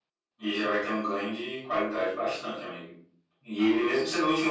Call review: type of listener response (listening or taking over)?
listening